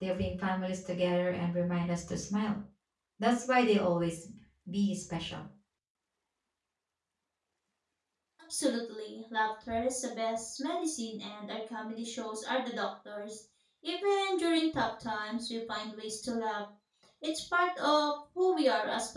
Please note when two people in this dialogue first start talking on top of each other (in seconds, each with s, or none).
none